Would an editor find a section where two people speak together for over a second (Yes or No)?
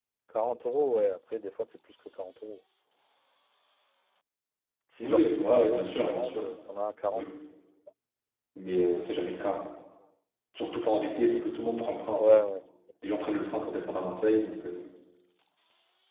Yes